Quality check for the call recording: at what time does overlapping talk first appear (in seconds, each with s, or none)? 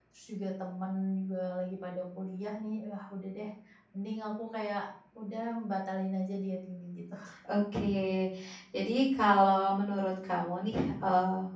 none